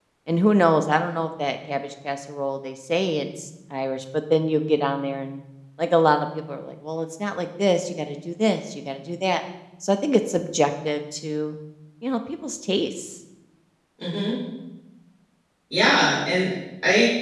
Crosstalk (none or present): none